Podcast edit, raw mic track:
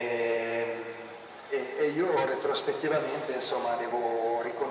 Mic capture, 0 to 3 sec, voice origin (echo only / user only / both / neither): echo only